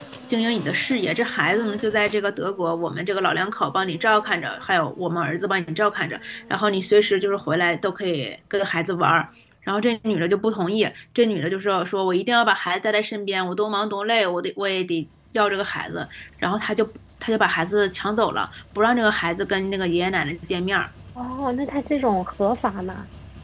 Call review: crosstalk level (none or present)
none